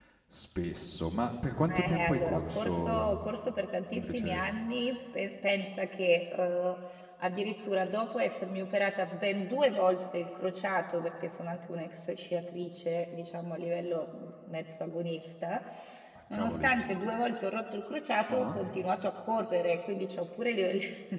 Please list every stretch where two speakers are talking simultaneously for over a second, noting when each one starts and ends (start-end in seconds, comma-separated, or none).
1.7-3.2